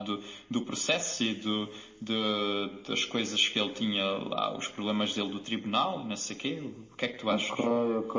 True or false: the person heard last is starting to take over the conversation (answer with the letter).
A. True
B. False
A